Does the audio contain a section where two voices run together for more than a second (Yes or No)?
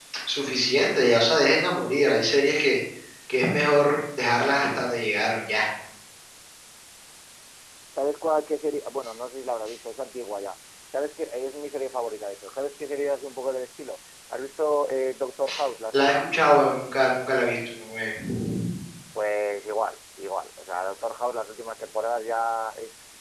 No